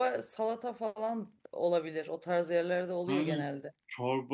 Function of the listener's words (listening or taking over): taking over